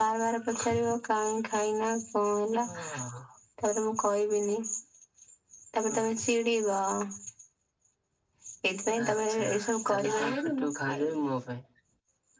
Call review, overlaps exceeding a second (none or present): present